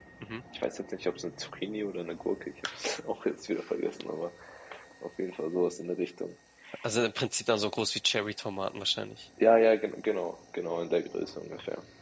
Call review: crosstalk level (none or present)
none